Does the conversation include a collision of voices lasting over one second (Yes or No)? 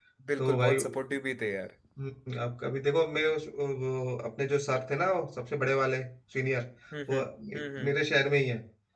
No